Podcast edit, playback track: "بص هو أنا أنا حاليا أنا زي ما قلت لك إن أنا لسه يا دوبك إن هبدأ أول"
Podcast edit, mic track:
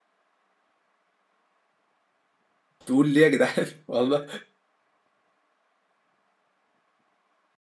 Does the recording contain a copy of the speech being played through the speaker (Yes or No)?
No